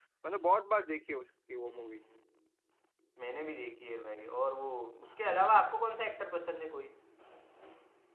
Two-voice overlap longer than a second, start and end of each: none

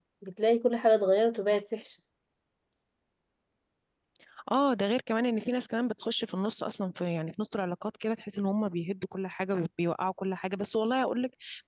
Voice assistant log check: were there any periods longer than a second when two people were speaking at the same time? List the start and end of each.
none

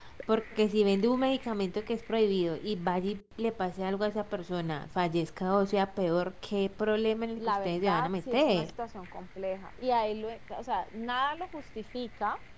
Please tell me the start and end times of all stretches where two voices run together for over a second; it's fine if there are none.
7.4-8.7

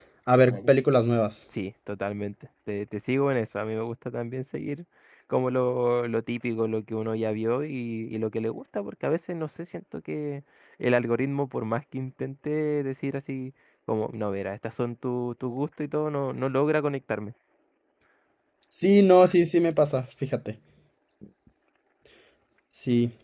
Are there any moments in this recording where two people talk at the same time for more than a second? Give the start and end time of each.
none

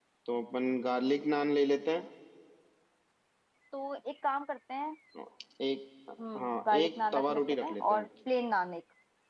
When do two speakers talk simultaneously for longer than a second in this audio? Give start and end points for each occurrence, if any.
6.4-8.1

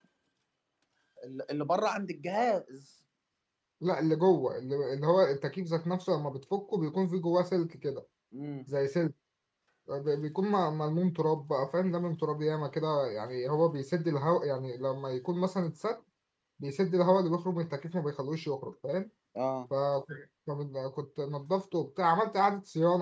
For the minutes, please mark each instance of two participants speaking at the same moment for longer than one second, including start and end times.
none

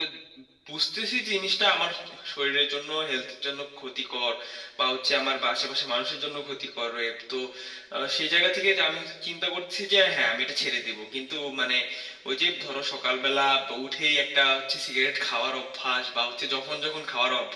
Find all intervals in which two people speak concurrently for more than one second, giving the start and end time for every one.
none

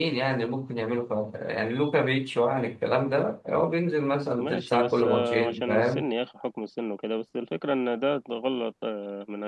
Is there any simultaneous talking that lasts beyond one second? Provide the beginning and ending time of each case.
4.4-6.1

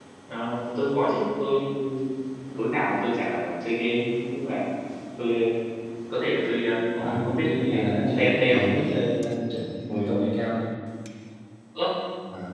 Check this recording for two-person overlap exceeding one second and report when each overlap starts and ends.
7.0-8.6

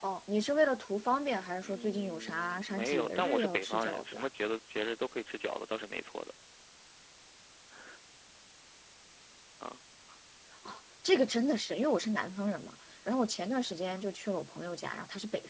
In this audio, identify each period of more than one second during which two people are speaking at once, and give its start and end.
1.6-4.3

